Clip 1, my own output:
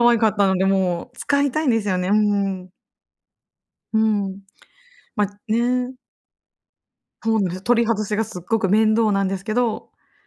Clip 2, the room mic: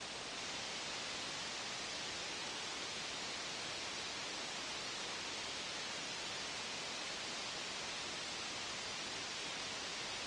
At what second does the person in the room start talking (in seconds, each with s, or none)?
none